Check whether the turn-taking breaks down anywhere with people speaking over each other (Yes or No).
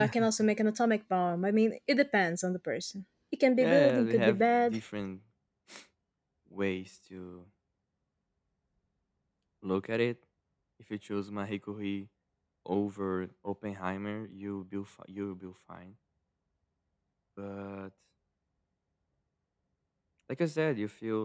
Yes